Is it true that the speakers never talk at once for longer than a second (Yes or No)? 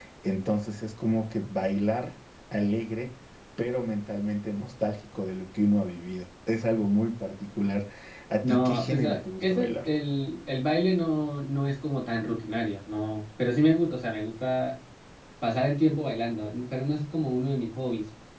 No